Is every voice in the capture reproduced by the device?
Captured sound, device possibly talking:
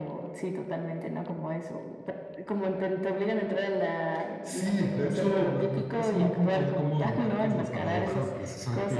Yes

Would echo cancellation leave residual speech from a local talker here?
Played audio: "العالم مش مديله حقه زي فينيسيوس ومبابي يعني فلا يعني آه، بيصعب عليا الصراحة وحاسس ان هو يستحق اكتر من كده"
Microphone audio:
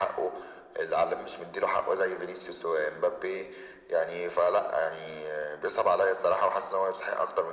No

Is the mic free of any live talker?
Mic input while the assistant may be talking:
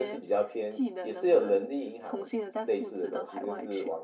Yes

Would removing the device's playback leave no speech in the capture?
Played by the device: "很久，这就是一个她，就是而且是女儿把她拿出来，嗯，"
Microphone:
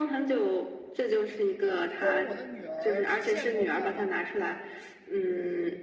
No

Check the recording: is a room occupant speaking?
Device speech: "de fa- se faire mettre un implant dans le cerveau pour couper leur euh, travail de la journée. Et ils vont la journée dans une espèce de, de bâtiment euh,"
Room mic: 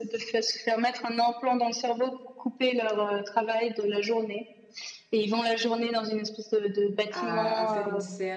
Yes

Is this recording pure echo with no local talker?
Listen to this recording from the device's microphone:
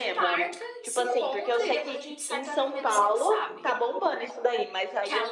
No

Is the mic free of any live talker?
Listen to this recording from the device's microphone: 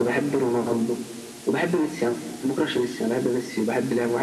Yes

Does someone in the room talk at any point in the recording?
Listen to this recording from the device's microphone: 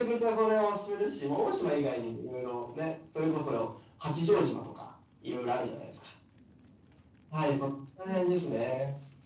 No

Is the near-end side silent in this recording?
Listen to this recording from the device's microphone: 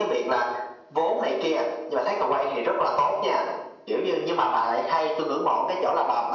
Yes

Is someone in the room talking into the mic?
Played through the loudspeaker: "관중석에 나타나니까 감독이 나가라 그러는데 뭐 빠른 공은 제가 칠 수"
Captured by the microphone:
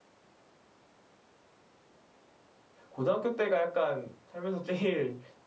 Yes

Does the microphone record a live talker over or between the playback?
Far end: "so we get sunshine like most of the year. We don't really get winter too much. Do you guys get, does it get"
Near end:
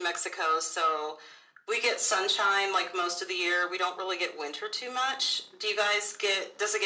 No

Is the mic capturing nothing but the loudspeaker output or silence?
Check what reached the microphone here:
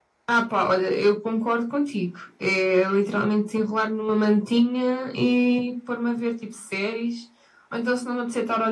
Yes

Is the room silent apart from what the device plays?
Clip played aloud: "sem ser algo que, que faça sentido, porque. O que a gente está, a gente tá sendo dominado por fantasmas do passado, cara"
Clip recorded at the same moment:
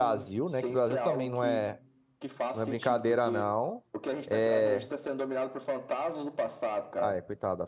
No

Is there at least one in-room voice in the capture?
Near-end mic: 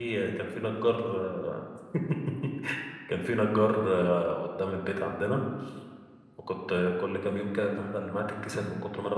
Yes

